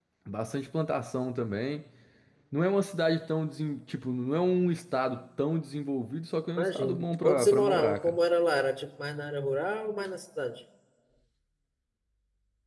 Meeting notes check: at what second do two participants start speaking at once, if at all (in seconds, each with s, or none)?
6.6 s